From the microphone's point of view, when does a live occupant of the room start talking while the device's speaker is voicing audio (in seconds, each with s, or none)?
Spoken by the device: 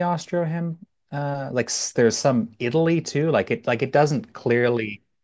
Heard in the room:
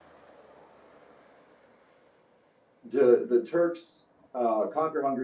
2.8 s